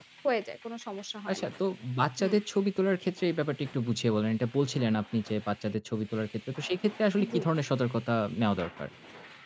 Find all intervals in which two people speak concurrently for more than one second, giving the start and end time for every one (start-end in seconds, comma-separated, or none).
none